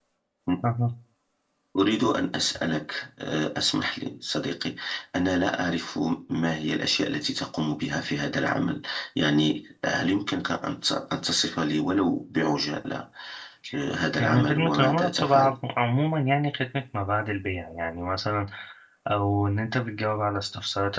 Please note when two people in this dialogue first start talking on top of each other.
14 s

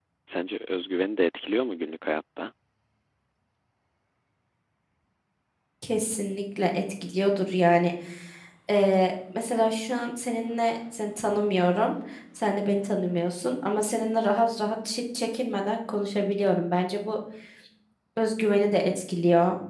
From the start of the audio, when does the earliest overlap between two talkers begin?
none

